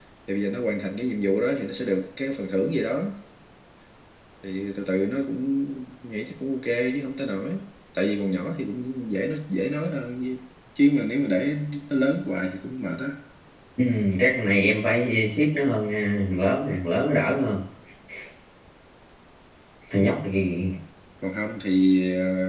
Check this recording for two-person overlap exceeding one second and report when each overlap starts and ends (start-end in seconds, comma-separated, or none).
none